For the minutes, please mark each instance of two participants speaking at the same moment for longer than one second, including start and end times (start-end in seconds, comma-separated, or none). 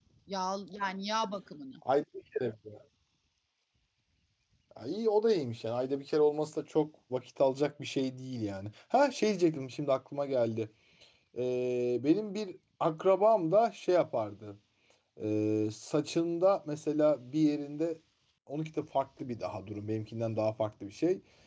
none